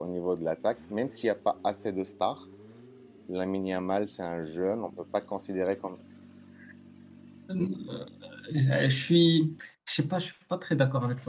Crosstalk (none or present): none